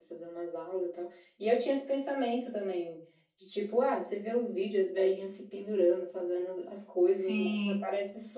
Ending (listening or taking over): listening